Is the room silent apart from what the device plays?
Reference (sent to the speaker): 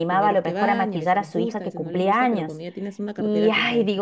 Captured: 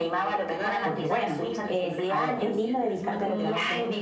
No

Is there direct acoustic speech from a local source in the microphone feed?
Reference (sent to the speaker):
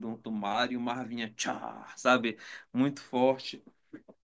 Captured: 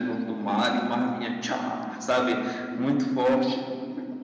No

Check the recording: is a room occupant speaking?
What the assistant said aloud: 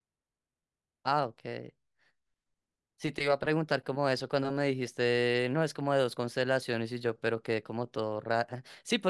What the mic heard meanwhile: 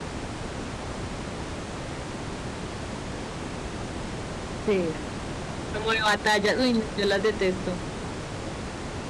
Yes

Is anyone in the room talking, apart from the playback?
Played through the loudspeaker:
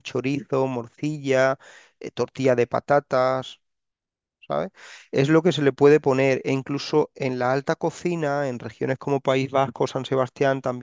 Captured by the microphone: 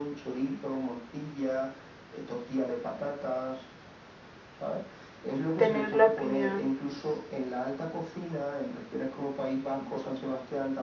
Yes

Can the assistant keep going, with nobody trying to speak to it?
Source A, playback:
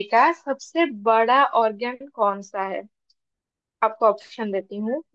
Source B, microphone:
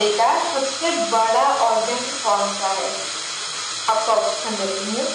Yes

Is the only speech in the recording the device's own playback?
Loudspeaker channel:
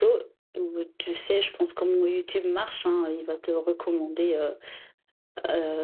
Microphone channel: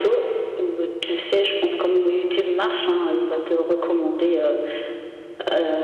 Yes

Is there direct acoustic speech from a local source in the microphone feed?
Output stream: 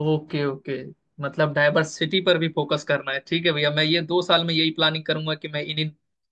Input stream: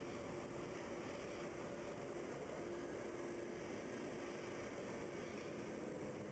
No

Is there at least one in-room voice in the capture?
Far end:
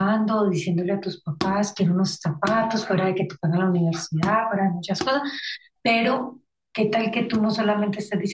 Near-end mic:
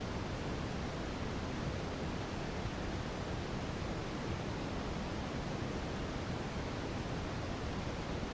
No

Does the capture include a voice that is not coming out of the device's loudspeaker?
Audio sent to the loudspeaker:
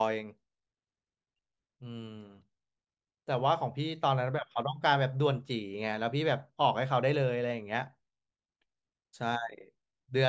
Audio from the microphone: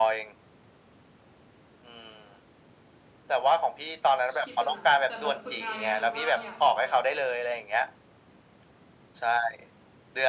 Yes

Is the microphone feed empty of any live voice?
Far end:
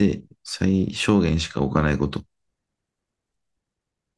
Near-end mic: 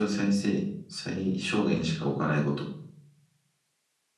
Yes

